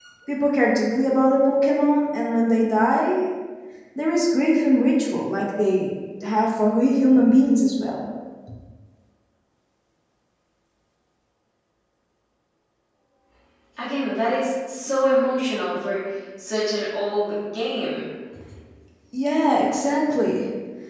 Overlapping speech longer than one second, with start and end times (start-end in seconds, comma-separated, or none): none